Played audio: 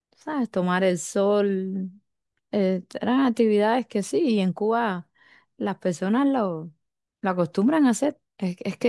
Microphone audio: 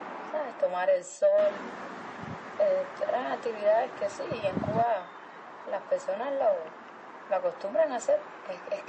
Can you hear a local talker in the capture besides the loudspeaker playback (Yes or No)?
No